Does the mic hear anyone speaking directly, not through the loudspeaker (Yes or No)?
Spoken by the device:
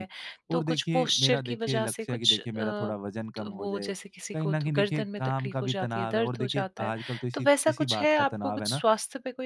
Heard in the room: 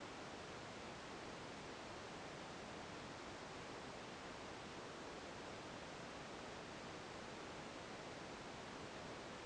No